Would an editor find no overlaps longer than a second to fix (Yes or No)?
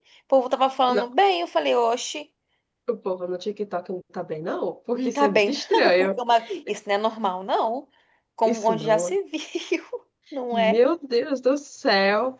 No